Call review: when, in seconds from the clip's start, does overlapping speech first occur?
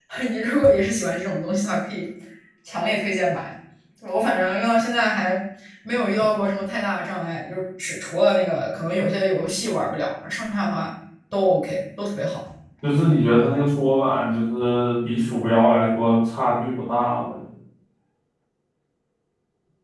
none

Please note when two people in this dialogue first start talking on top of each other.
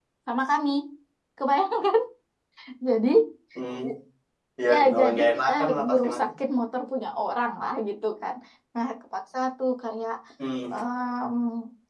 4.7 s

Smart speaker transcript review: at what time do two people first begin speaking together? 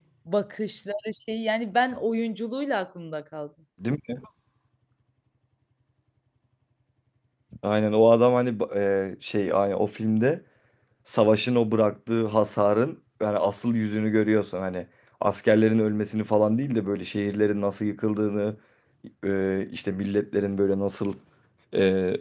none

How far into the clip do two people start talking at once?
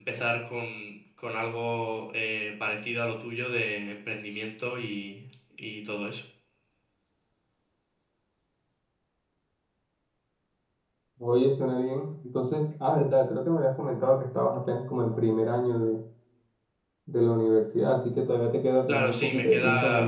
18.9 s

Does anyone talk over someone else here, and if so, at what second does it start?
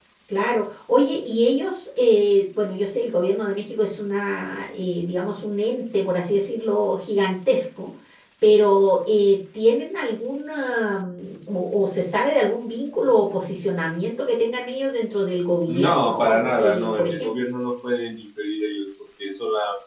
15.7 s

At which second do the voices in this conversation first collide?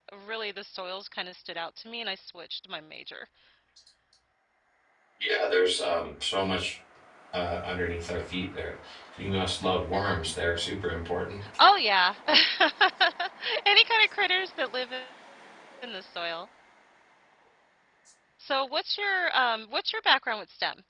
none

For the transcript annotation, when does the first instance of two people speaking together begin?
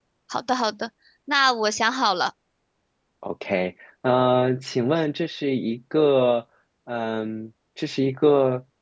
none

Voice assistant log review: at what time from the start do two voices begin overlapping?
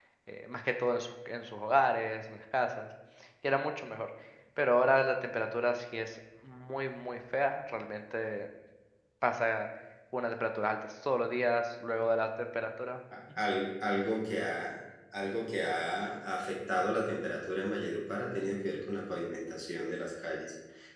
none

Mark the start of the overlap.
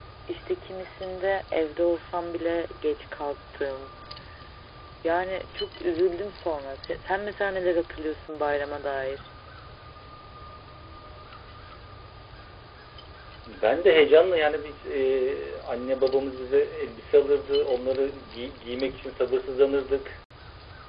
none

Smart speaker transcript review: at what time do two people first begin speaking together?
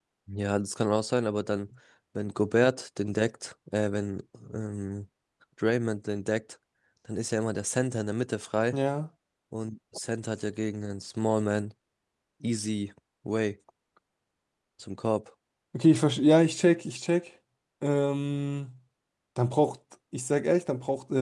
none

